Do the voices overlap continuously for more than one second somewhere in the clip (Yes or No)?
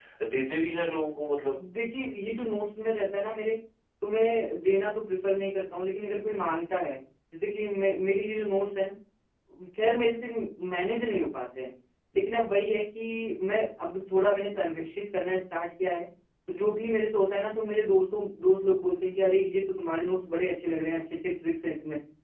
No